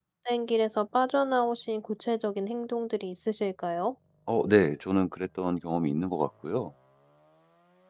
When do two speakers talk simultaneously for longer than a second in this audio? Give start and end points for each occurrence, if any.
none

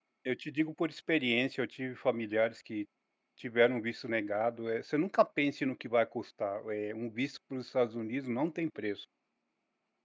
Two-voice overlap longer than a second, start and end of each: none

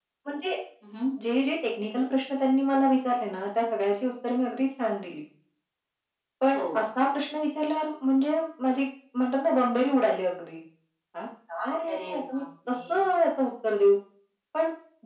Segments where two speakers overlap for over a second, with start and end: 11.9-13.1

